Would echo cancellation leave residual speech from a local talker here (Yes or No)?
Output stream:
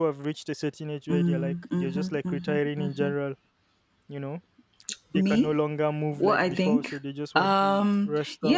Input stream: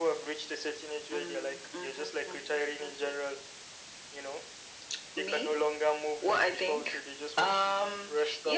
No